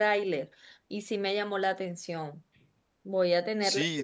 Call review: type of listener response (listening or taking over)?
taking over